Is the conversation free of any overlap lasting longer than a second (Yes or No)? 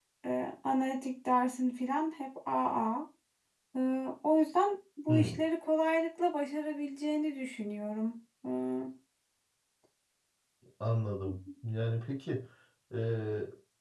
Yes